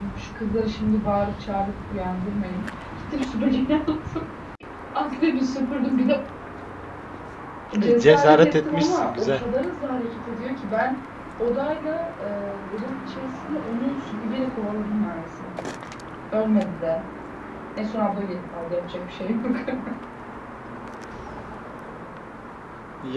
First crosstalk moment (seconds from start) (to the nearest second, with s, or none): 8 s